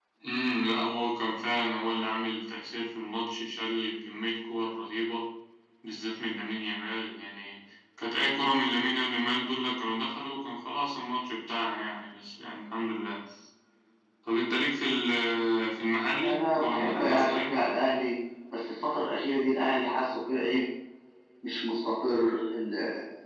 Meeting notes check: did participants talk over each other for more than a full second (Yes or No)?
Yes